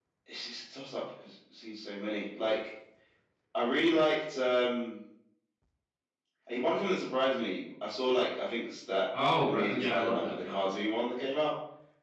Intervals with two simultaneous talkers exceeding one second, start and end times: 9.4-10.8

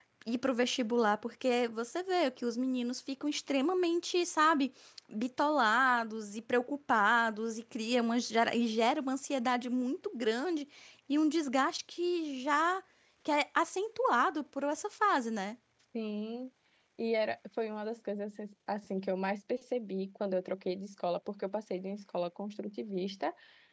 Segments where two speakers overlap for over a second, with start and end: none

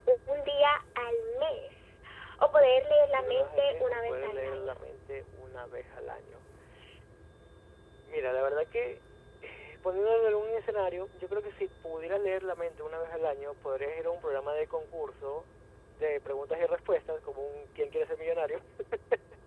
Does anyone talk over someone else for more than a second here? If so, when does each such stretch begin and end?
2.5-4.8

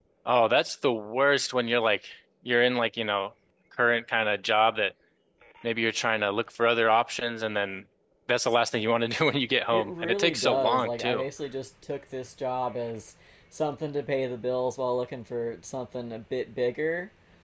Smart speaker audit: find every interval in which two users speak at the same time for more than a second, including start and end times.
9.7-11.2

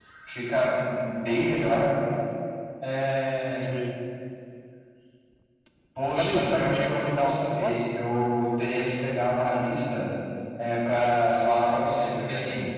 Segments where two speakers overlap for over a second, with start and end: 6.2-7.8

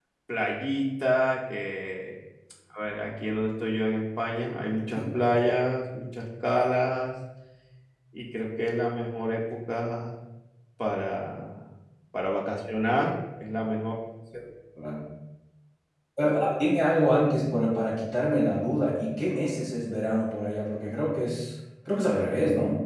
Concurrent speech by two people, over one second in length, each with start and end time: none

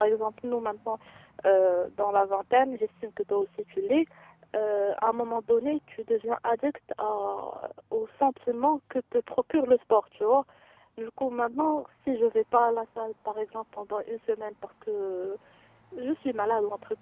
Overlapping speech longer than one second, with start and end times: none

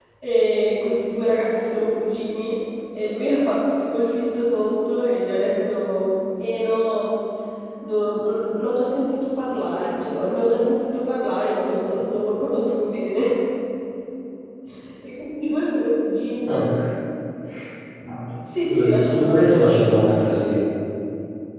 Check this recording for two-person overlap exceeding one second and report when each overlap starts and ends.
18.7-20.2

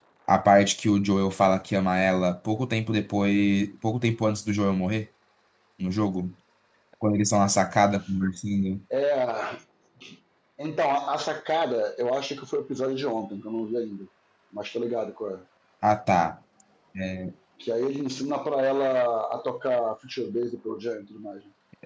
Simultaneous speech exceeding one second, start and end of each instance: none

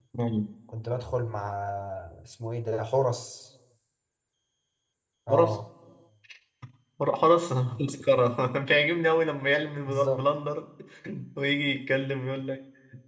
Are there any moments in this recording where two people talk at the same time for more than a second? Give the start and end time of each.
none

